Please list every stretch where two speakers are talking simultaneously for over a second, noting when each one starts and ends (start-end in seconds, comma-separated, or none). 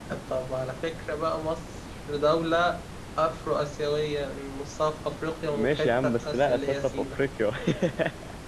5.5-7.2